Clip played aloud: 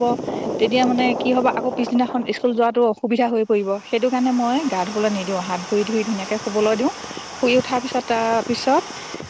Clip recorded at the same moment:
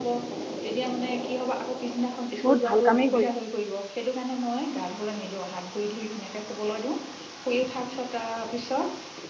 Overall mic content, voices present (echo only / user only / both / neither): both